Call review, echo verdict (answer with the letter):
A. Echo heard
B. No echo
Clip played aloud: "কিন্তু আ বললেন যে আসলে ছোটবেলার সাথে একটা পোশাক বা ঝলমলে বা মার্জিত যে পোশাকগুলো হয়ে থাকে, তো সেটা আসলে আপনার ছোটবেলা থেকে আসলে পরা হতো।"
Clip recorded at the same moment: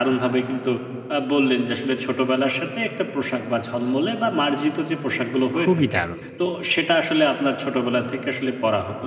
A